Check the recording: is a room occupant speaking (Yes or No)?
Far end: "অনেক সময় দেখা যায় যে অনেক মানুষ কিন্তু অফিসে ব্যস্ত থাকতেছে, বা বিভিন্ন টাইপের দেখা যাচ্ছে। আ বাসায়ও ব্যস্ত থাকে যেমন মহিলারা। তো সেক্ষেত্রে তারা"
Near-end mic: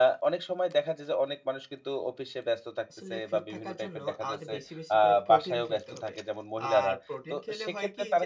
Yes